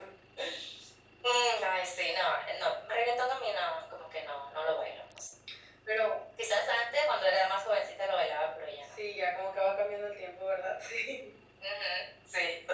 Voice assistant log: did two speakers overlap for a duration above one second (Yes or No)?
No